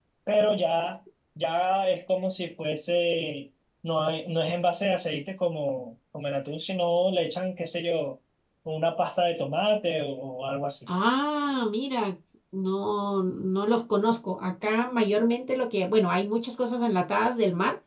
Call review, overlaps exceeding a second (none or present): none